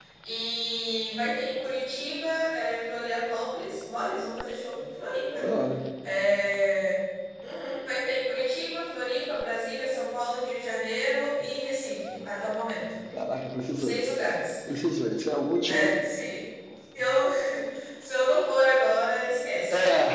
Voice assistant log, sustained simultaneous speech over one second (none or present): none